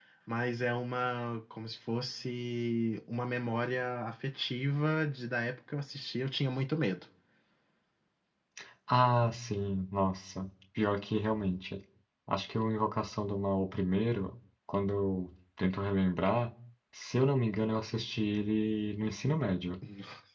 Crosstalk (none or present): none